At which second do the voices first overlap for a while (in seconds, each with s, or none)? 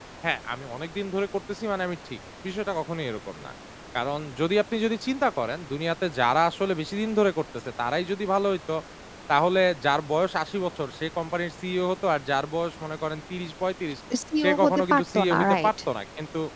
14.4 s